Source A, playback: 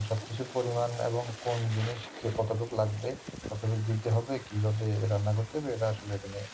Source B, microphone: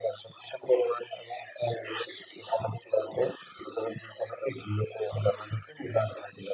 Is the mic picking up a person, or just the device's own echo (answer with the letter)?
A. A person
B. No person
B